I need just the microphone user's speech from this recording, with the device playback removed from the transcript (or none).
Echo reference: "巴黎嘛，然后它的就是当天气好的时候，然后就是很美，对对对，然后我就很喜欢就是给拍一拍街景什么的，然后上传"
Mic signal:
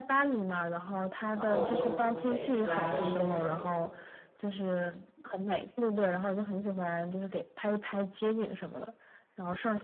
然后我就会拉伸一下腿。